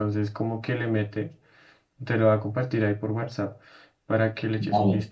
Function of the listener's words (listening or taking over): taking over